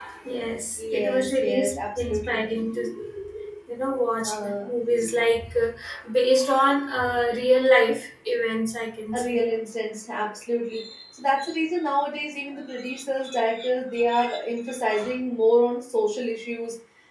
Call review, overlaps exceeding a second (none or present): present